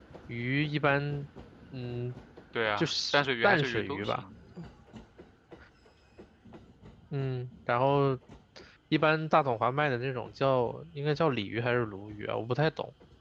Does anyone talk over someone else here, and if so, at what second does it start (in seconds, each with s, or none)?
2.8 s